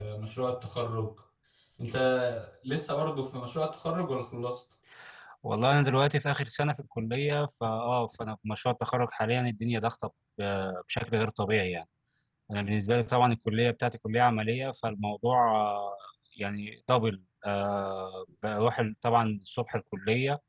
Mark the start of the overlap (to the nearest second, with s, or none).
none